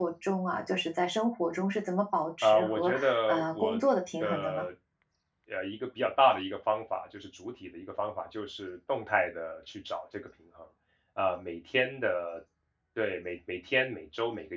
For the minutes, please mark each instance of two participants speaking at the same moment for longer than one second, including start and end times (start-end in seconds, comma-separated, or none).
2.4-3.8